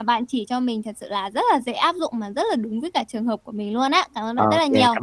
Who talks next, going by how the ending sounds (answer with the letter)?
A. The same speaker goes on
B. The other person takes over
B